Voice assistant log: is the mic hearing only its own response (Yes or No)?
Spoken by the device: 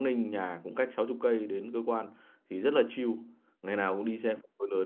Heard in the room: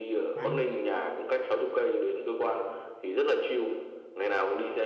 No